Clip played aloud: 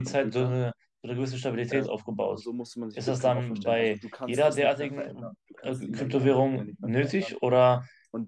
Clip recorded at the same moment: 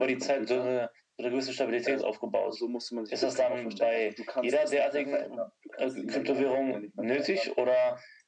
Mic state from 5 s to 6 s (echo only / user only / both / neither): echo only